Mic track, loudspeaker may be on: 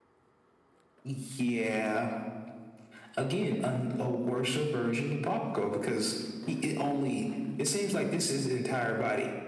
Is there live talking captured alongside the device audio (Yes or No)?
No